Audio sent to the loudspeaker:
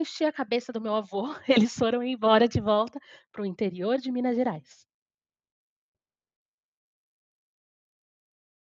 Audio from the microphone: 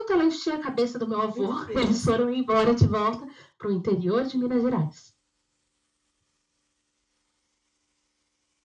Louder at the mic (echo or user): echo